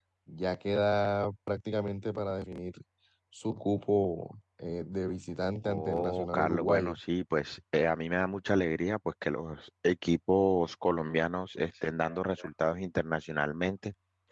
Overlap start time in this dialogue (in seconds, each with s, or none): 5.7 s